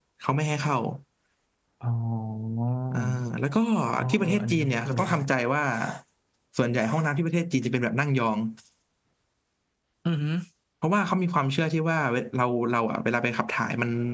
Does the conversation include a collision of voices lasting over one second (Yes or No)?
Yes